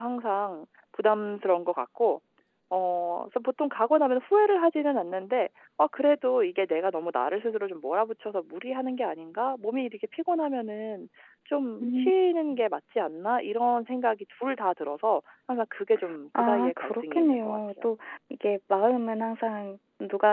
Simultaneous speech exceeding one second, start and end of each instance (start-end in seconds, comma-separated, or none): 16.4-17.9